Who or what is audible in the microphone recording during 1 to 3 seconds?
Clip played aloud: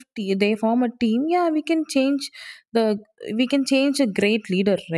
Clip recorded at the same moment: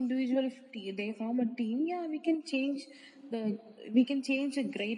echo only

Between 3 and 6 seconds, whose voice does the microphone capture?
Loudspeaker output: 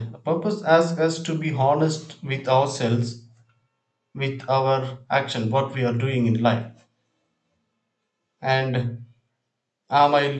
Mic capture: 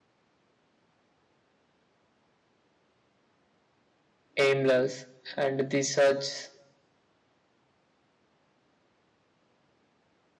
user only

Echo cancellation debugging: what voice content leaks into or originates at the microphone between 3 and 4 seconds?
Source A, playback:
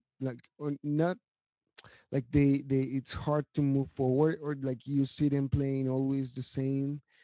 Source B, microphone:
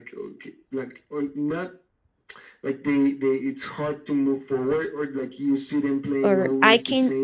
echo only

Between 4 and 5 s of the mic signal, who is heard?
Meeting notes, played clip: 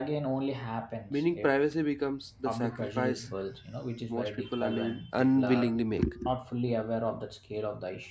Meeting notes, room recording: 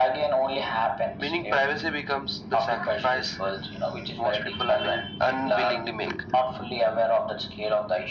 echo only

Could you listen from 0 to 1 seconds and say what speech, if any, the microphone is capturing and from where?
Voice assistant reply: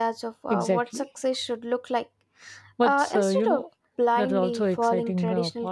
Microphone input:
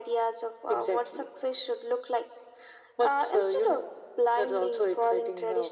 echo only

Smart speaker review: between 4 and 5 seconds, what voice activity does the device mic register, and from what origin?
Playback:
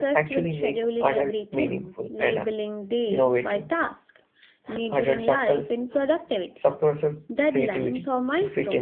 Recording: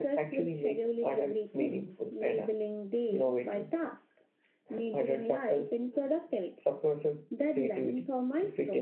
echo only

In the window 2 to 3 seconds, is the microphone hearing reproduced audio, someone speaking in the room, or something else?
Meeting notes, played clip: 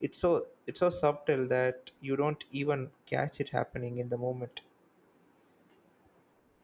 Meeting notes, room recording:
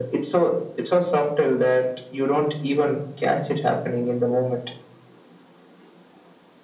echo only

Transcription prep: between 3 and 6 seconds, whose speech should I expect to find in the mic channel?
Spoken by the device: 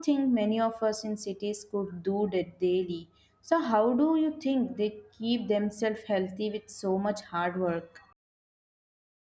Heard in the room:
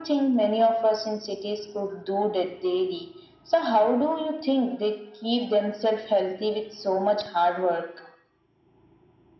echo only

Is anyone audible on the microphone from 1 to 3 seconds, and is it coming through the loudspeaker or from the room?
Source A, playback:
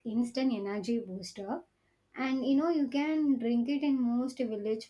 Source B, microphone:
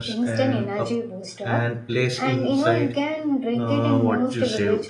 both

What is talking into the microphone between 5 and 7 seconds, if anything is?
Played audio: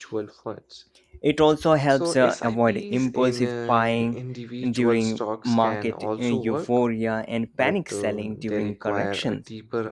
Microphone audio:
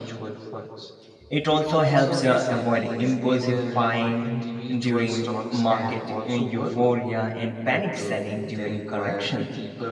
echo only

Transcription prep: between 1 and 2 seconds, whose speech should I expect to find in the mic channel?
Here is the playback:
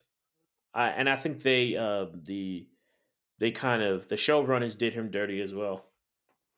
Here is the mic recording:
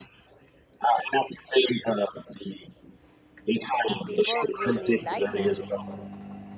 echo only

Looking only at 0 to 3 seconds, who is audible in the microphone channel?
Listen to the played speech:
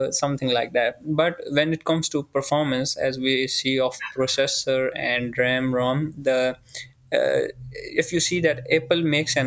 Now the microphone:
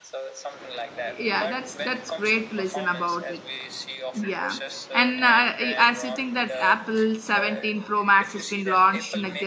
both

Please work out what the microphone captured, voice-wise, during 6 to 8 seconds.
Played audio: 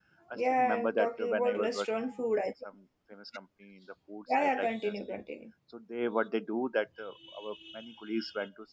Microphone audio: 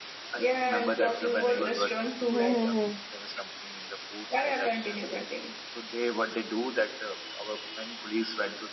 echo only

